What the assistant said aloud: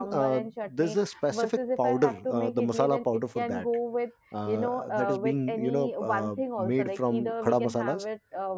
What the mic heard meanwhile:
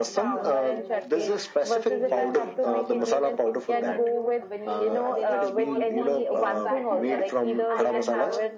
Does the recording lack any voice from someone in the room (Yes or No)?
No